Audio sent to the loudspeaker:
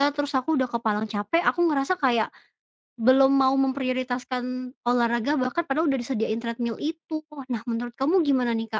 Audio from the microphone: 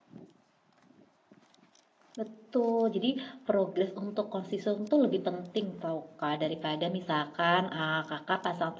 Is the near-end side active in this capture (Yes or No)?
Yes